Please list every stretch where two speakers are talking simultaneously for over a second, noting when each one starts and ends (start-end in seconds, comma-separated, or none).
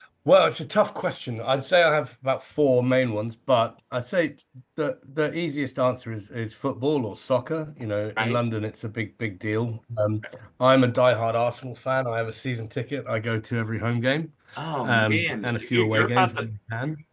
14.8-16.4